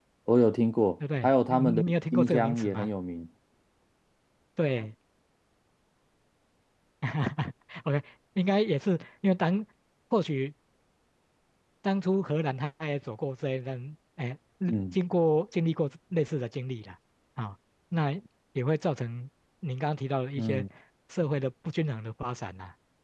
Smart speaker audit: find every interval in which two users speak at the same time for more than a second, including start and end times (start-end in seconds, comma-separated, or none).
1.2-2.9